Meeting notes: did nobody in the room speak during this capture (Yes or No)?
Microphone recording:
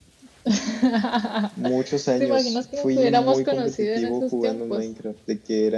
Yes